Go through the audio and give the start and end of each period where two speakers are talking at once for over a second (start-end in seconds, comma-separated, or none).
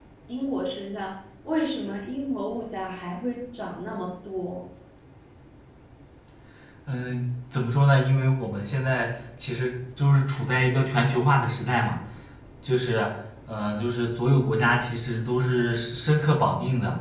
none